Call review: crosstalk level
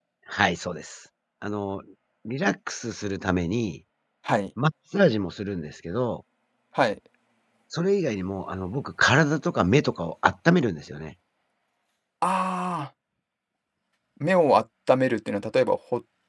none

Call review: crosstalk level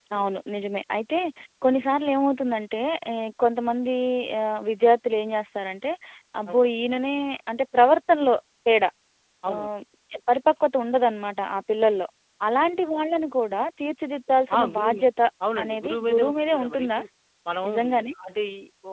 present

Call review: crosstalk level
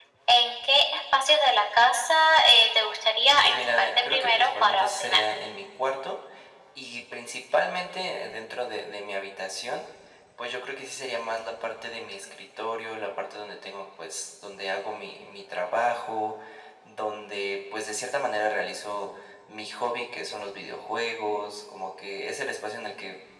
present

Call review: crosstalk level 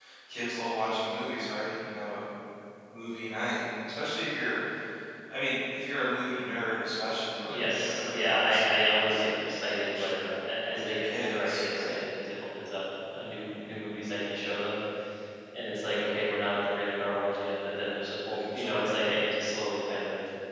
present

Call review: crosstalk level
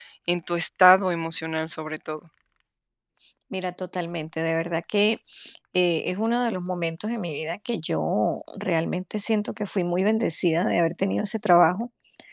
none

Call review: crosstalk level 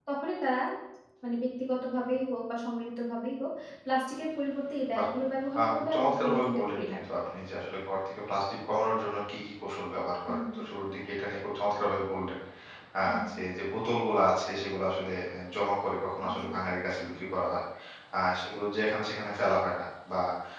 present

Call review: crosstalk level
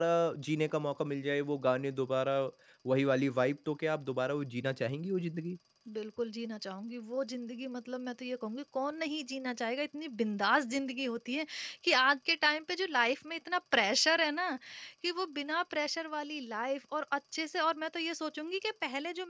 none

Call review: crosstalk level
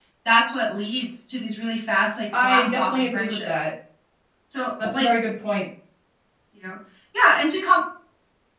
present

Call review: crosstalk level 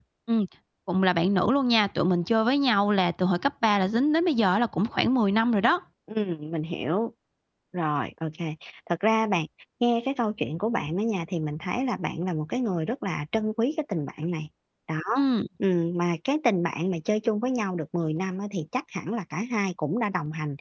none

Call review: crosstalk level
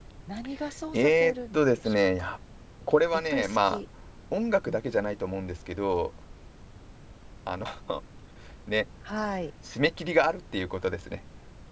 present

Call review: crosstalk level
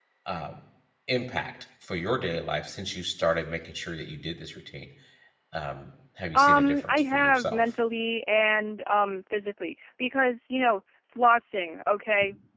present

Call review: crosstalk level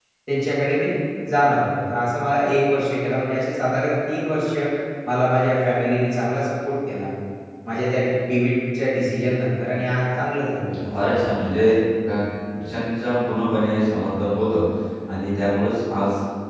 none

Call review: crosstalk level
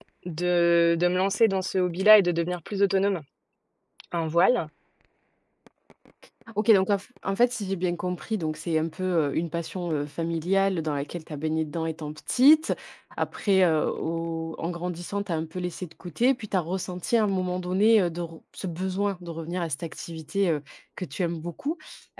none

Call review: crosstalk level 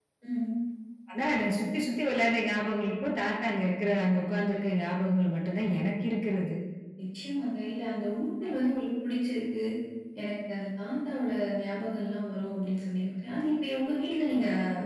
none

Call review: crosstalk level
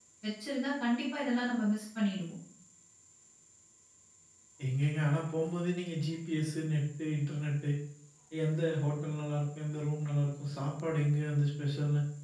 none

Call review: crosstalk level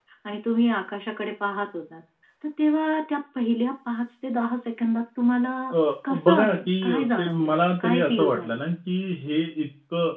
present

